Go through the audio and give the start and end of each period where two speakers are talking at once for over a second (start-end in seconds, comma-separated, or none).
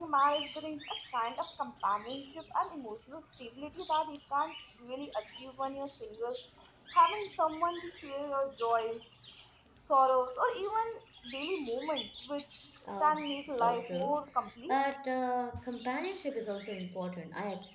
13.0-14.2